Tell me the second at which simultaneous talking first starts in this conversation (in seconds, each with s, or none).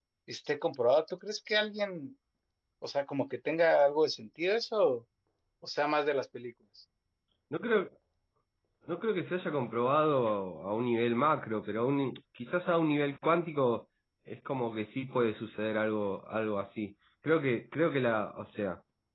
none